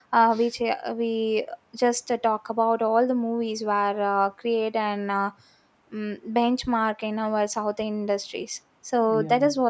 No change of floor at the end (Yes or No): Yes